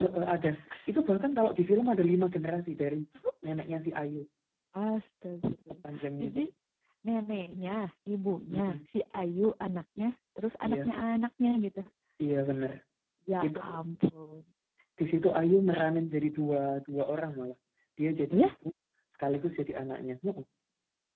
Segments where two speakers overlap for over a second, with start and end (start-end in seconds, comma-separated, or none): none